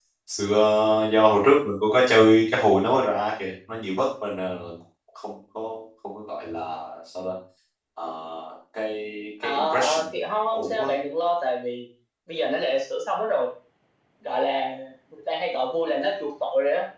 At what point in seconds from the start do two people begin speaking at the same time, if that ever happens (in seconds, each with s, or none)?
9.4 s